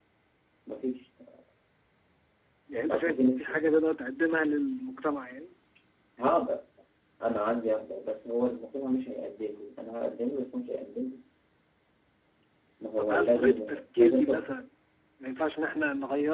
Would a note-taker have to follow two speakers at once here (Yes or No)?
Yes